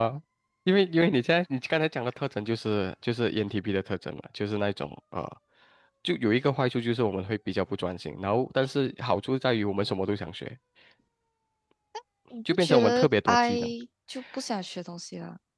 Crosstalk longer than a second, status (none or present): present